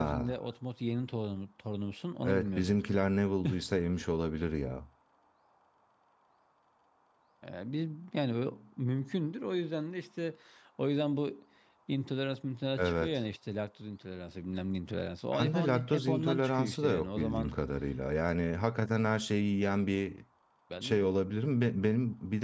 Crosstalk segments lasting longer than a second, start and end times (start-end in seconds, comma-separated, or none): 15.3-17.6